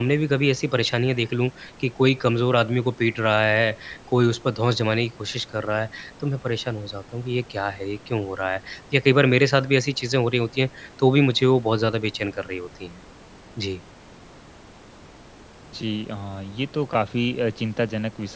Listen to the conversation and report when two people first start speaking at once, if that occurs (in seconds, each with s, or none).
none